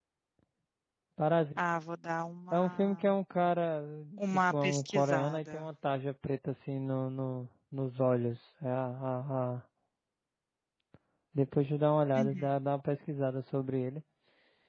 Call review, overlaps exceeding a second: present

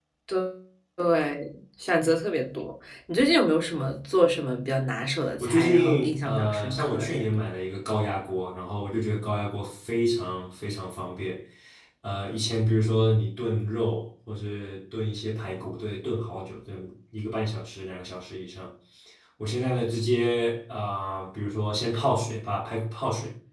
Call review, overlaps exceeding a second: present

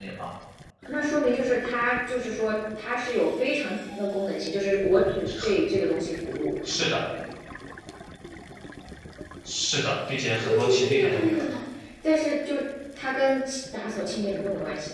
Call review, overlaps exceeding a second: present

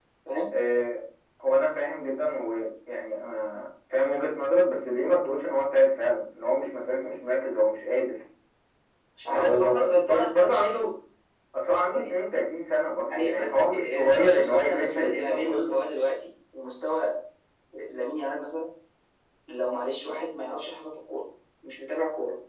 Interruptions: present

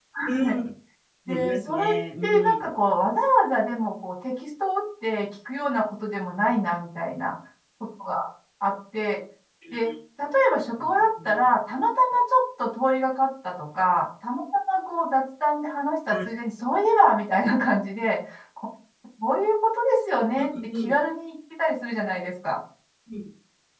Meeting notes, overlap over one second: present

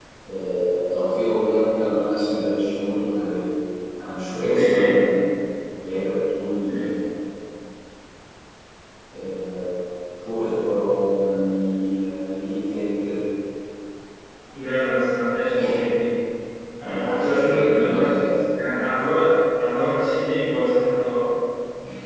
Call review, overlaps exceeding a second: present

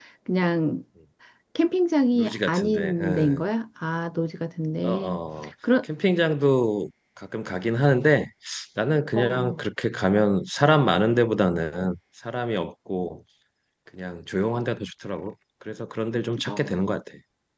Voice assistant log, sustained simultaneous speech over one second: present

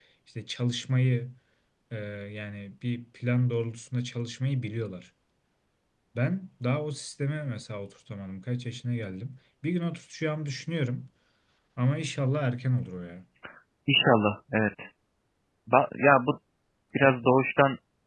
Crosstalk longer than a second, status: none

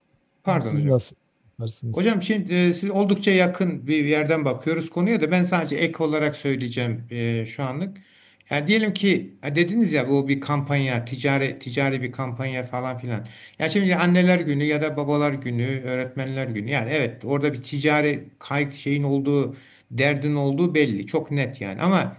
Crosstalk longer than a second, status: none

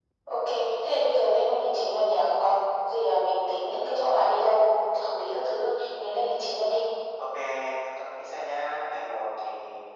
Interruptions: none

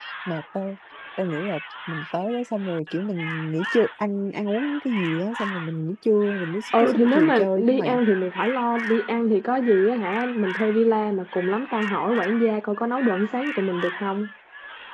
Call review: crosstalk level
present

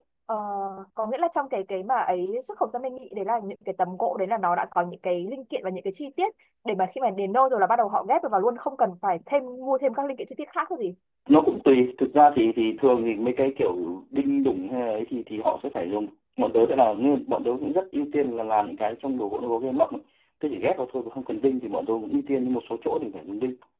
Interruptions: none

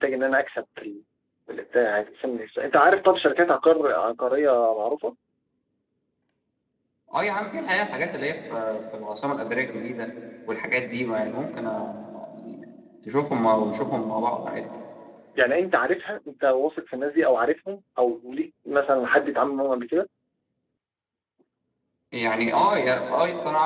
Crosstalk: none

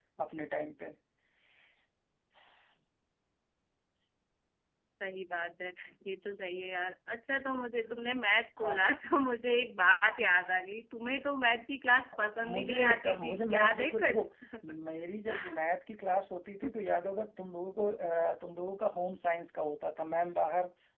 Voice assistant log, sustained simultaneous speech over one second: present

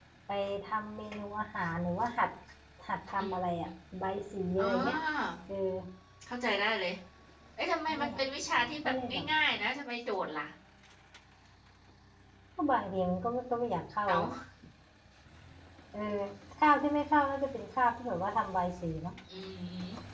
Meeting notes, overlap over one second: none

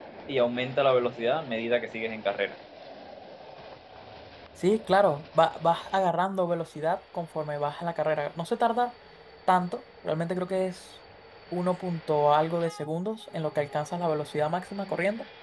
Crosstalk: none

